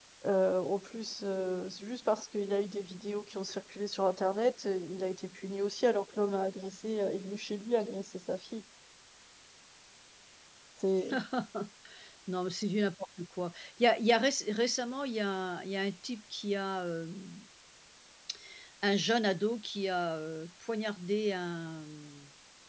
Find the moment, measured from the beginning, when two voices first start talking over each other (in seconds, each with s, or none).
none